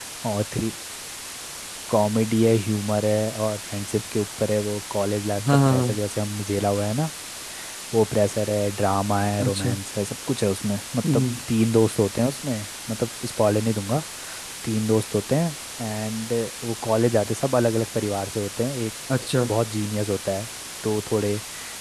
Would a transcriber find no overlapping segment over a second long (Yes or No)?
Yes